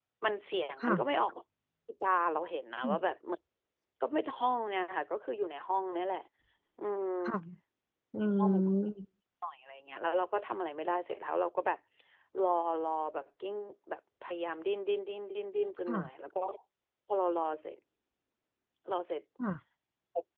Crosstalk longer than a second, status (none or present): none